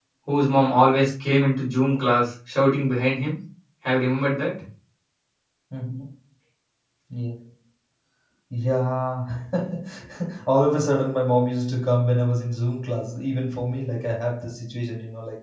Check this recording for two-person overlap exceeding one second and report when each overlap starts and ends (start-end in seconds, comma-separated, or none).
none